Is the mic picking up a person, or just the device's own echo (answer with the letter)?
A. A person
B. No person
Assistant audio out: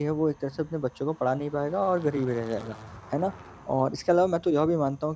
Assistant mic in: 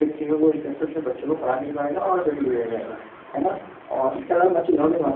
B